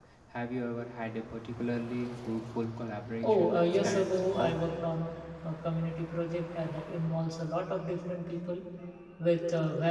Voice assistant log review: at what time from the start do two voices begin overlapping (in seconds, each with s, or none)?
3.2 s